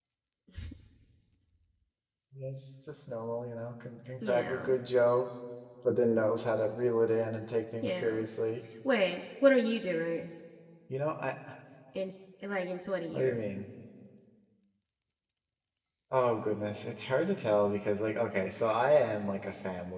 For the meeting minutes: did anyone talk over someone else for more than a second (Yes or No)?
No